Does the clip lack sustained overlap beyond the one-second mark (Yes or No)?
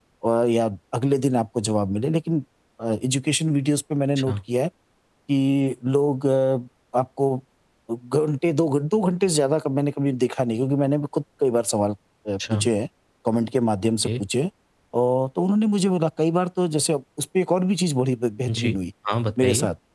Yes